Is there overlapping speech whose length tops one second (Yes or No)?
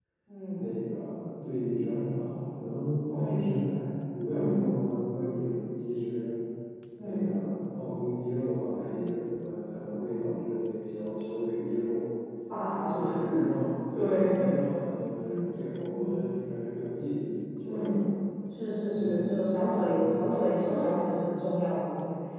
Yes